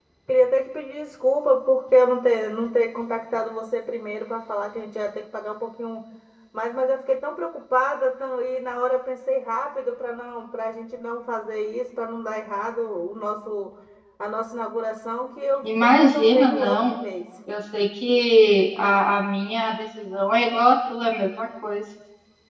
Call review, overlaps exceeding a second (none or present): present